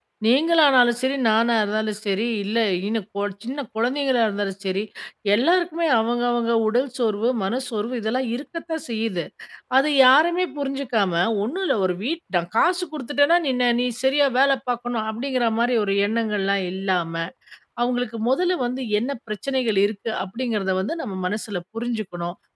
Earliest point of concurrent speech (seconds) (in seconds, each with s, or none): none